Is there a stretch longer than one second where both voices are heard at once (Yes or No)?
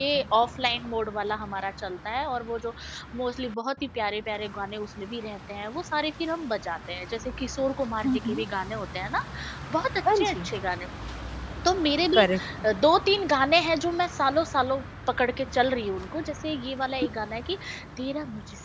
No